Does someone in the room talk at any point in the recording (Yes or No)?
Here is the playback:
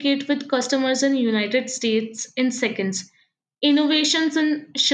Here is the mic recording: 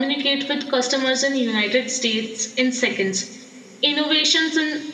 No